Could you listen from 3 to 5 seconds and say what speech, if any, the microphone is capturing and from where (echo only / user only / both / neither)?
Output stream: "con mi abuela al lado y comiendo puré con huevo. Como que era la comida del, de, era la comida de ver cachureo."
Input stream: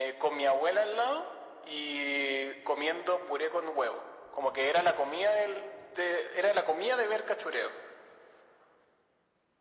echo only